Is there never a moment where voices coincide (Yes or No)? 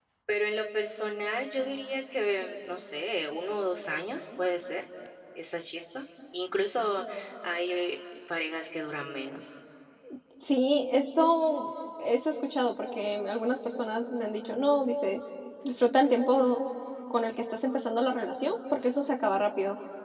Yes